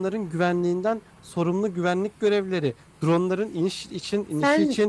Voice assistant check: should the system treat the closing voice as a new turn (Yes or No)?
No